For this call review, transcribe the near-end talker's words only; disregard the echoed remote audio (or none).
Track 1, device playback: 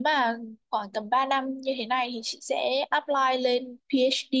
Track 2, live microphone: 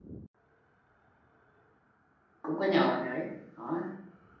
cũng có nhờ bạn ấy đó